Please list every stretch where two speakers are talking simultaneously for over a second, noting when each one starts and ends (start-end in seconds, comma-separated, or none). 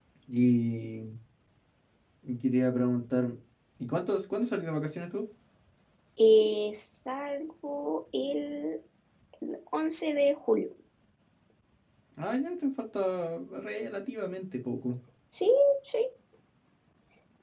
none